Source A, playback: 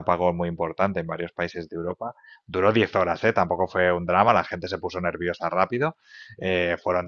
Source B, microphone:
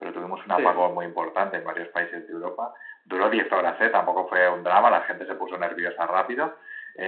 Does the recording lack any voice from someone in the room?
No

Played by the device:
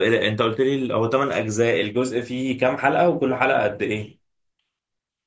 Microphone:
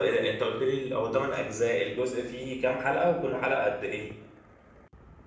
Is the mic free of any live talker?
Yes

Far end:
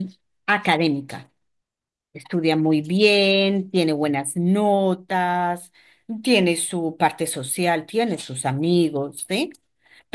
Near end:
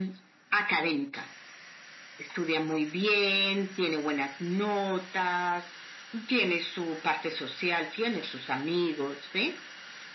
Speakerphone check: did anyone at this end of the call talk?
No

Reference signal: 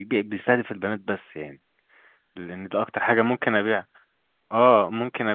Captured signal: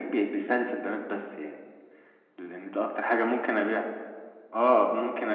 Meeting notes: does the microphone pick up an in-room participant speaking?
No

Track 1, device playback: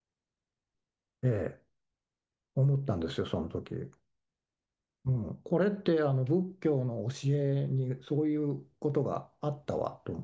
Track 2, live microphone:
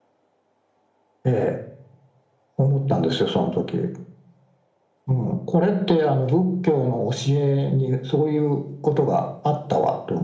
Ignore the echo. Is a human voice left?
No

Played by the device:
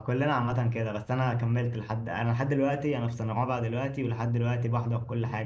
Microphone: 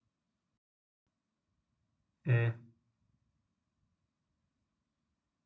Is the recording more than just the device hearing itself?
Yes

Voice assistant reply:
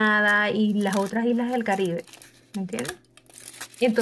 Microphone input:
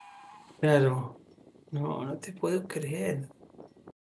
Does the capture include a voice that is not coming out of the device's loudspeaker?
Yes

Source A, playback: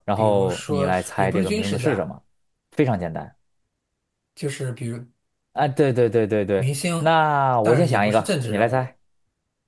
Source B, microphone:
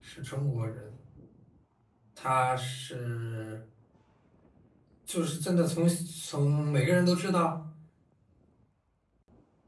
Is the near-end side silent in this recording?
No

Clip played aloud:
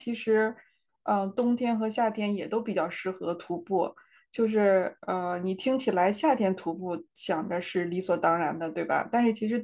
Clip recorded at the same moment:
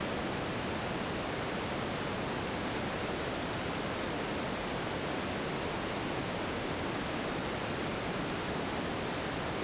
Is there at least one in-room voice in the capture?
No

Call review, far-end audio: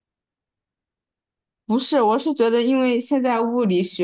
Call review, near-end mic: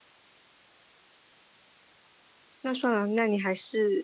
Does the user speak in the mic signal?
Yes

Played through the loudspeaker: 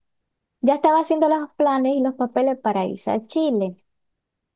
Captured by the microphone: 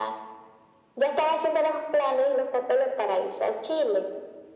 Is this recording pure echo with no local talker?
Yes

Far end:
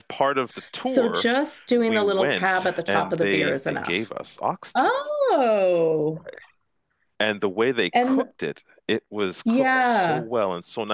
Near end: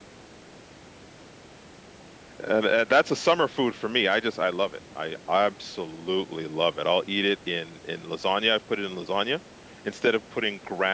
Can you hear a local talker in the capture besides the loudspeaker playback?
Yes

